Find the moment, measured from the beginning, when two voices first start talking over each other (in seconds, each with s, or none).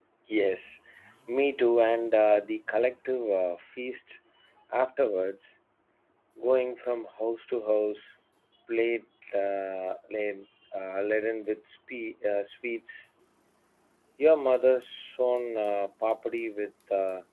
none